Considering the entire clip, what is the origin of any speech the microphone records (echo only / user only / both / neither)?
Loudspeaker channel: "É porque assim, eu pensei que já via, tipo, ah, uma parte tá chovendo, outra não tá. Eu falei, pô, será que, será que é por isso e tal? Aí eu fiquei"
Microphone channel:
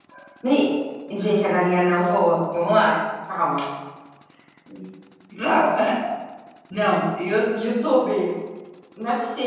user only